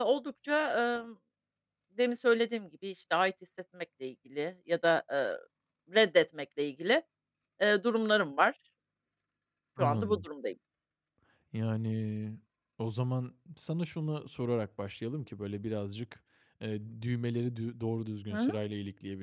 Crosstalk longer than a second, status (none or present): none